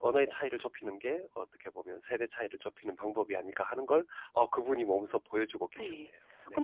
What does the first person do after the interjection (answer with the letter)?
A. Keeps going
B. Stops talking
B